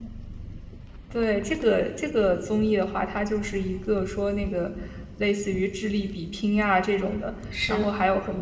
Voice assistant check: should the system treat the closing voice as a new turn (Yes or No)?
No